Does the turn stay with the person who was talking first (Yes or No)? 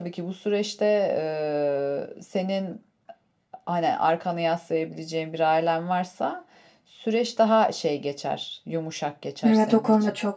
No